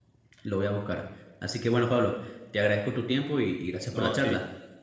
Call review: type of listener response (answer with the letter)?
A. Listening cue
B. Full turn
B